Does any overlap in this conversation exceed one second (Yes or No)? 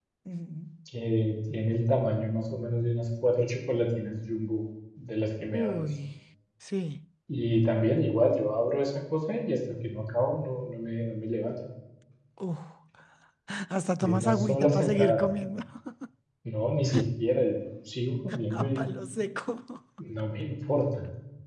Yes